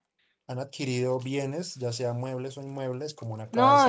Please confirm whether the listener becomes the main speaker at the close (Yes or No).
Yes